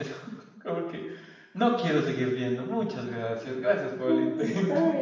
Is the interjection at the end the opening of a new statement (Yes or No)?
Yes